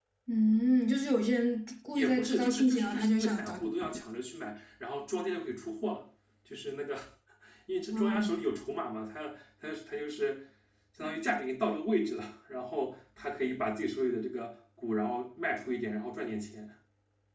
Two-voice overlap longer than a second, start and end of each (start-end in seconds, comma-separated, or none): 1.9-3.5